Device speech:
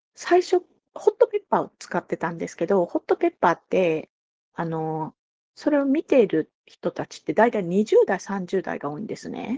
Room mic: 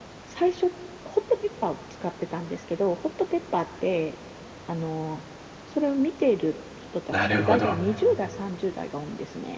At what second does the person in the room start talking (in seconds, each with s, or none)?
7.1 s